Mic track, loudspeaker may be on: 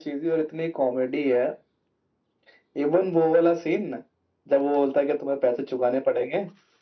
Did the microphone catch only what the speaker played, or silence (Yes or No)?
Yes